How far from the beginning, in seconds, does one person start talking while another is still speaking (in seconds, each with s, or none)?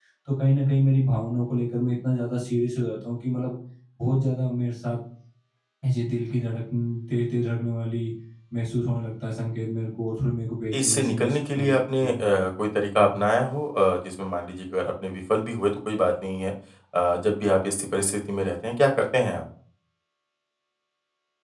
10.8 s